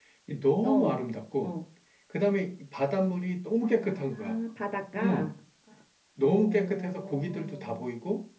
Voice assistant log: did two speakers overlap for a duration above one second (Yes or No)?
Yes